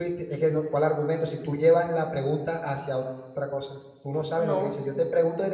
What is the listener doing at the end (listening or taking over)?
listening